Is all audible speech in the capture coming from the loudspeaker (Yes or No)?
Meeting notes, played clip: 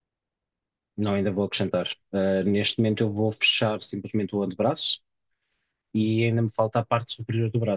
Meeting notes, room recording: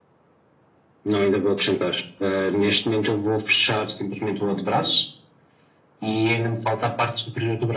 Yes